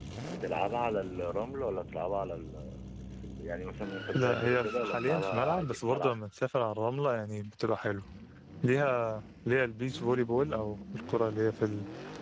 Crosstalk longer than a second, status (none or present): present